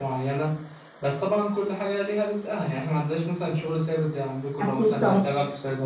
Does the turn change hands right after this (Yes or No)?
No